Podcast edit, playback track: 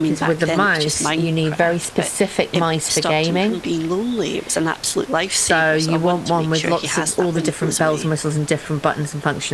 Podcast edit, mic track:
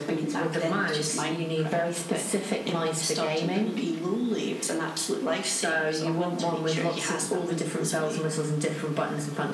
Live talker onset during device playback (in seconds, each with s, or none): none